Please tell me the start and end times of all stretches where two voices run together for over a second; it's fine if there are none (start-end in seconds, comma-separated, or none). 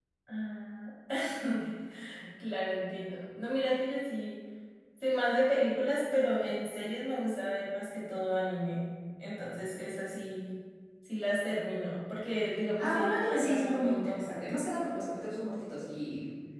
12.8-14.6